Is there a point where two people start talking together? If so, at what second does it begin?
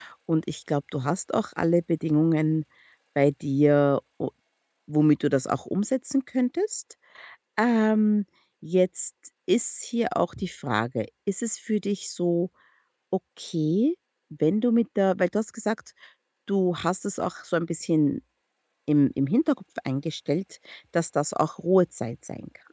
none

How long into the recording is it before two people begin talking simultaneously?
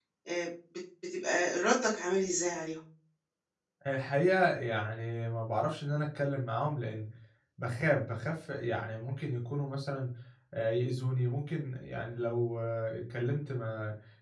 none

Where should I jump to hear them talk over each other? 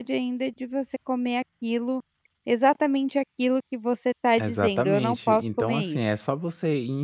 4.4 s

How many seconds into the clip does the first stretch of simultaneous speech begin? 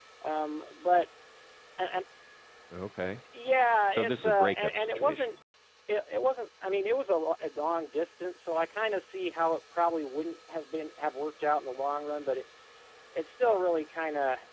3.9 s

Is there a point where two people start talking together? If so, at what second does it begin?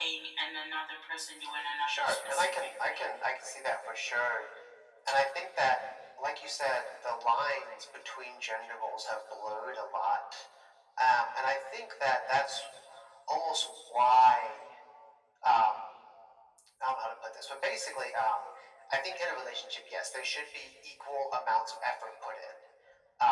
1.9 s

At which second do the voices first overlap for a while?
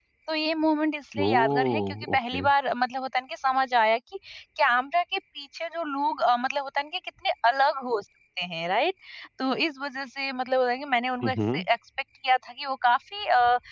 1.2 s

